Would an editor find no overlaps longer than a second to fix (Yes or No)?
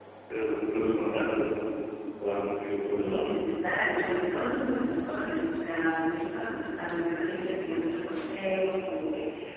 Yes